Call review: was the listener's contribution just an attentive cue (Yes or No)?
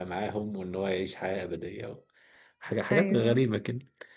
Yes